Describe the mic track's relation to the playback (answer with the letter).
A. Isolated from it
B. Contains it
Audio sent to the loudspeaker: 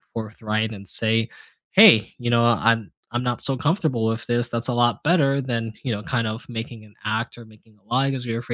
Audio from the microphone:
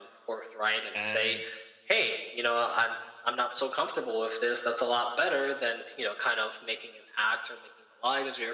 B